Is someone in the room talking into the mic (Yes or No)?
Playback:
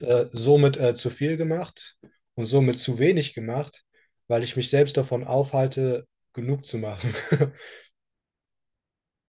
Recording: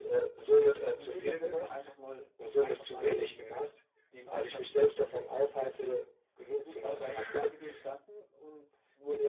Yes